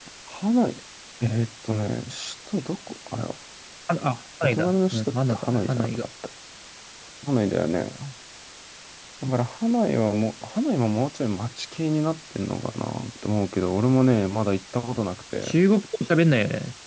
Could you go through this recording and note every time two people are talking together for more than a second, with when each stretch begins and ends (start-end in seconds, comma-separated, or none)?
4.4-6.0